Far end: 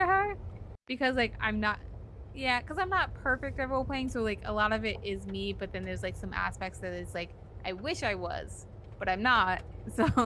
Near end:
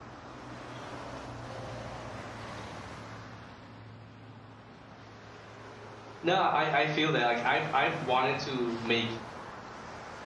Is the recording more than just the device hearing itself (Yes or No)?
Yes